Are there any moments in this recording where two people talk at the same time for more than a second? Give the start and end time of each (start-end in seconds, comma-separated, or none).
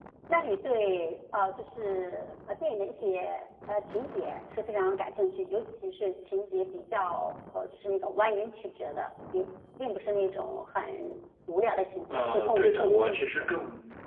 12.1-13.5